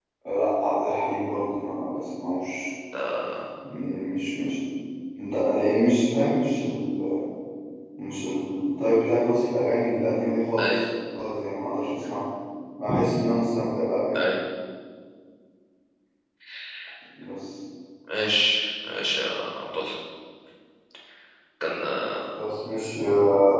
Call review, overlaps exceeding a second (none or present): none